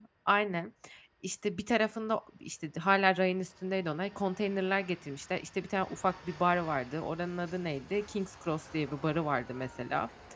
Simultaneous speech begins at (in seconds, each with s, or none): none